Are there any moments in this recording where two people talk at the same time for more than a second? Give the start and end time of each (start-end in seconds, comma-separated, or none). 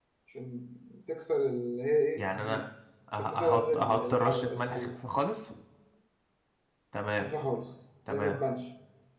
3.2-4.9